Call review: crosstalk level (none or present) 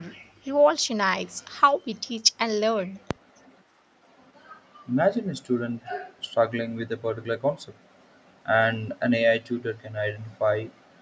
none